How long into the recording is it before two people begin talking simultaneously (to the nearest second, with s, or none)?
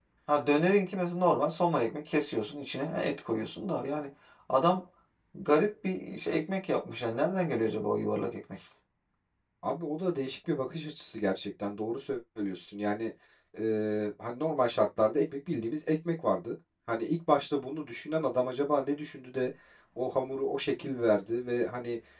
none